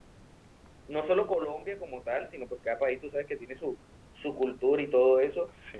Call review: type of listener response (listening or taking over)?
listening